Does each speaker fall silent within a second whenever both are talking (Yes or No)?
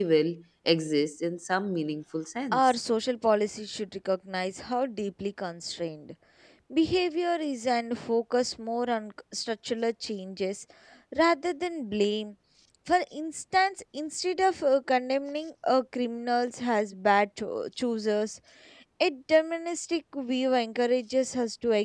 Yes